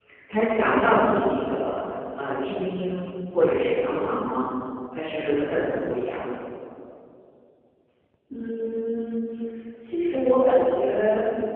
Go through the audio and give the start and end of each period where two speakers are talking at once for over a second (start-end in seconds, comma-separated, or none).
none